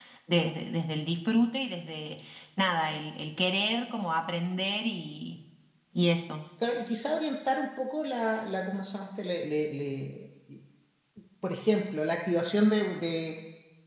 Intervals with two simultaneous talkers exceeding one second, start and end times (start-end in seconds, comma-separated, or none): none